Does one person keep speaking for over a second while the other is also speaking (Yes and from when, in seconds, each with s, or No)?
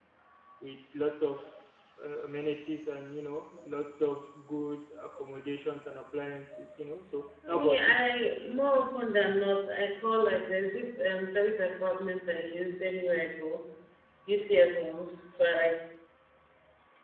No